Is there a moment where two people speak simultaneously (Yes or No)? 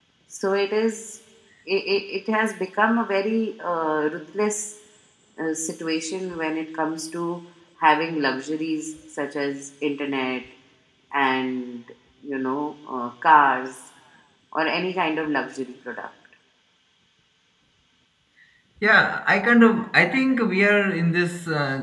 No